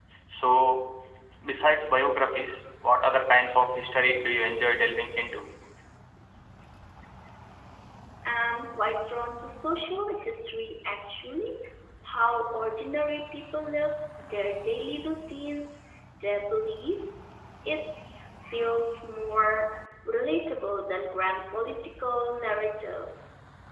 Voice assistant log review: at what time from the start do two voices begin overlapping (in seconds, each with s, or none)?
none